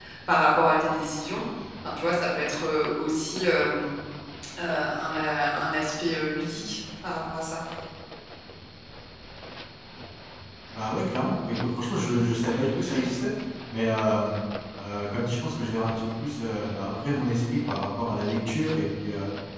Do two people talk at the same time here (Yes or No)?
No